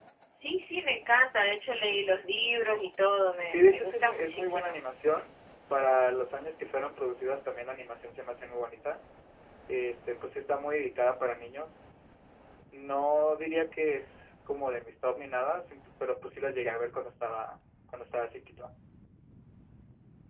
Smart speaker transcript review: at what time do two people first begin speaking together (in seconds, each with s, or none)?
3.5 s